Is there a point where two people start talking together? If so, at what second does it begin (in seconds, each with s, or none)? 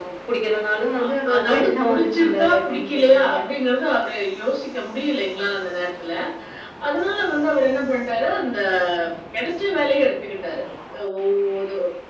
1.0 s